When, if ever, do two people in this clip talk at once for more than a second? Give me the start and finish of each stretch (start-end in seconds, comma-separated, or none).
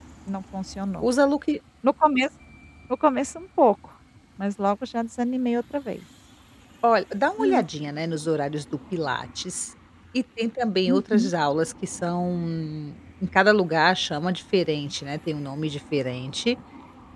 none